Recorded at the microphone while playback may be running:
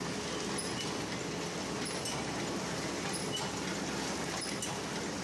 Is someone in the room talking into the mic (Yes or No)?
No